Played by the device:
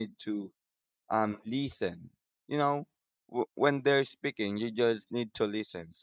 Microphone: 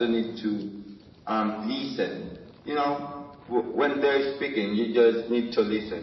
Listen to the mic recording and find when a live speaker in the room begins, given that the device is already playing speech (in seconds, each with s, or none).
none